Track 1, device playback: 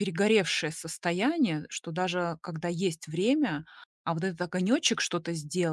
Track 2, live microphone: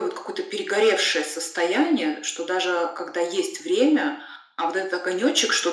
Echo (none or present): present